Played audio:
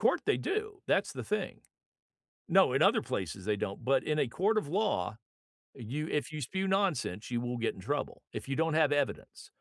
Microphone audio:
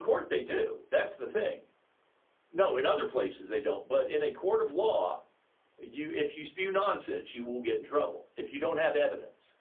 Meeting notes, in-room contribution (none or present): none